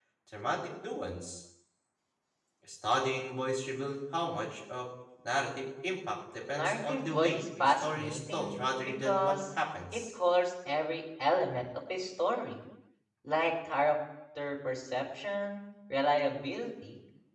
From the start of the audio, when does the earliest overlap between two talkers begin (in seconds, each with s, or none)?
6.5 s